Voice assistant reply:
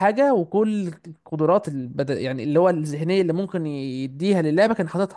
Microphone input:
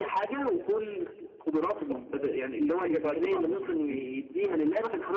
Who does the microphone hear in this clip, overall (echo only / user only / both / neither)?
both